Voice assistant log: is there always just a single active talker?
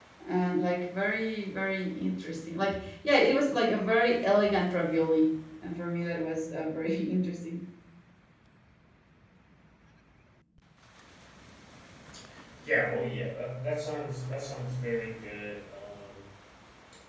Yes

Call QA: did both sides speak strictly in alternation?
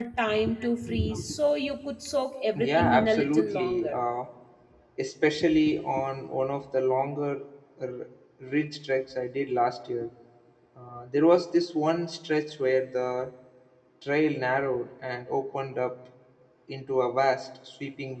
No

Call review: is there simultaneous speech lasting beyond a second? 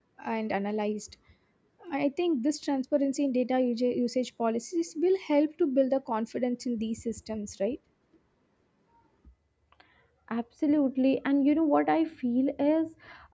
No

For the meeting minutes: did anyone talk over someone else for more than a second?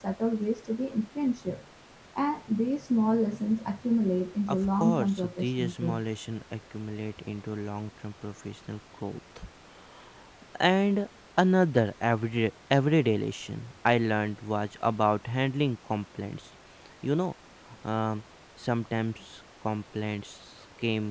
Yes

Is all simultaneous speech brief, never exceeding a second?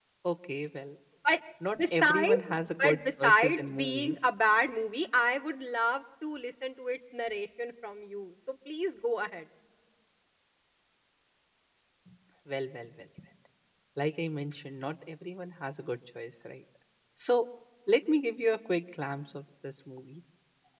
No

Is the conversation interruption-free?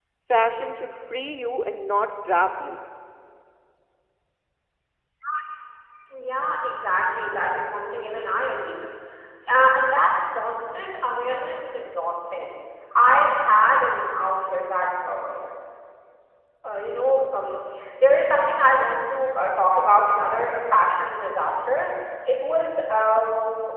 Yes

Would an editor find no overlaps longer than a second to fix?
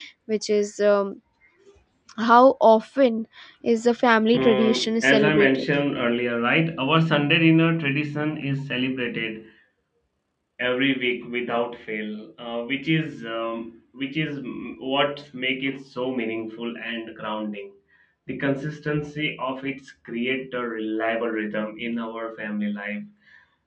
No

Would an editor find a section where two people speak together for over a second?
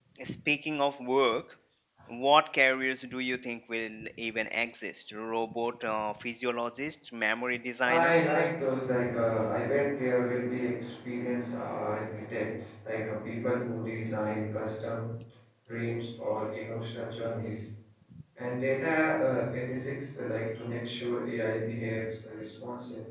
No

